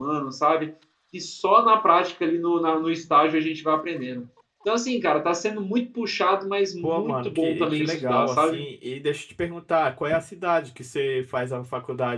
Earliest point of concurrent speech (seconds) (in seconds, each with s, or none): 6.8 s